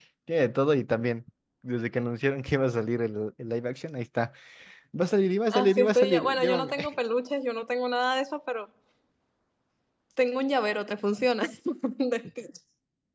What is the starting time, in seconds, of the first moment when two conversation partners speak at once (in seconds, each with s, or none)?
5.5 s